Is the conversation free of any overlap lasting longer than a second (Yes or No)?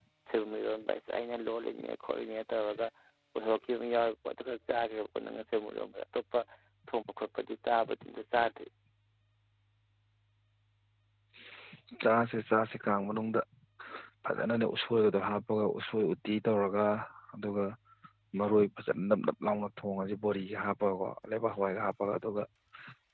Yes